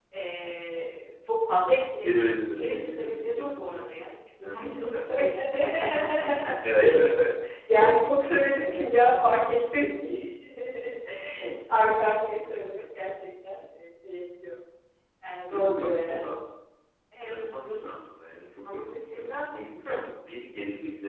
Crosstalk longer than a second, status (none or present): present